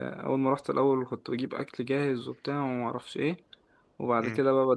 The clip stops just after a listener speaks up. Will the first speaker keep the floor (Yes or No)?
Yes